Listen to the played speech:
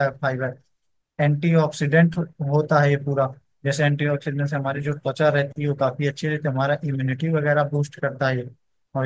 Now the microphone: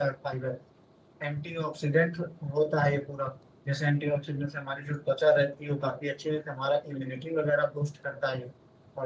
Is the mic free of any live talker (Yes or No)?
Yes